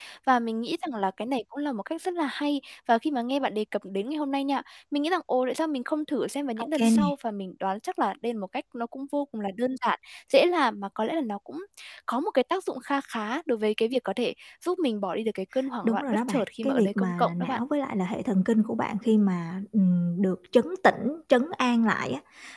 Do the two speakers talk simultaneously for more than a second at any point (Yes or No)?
Yes